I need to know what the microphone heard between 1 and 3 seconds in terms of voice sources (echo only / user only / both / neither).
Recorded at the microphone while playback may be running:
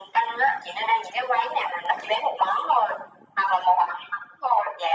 echo only